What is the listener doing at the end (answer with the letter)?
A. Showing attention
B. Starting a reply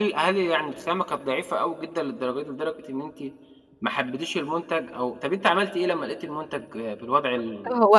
B